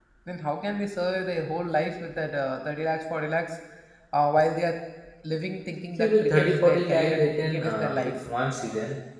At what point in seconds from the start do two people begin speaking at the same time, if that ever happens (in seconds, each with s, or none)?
6.0 s